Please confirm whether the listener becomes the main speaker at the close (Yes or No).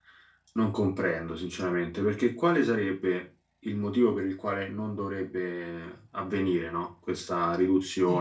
Yes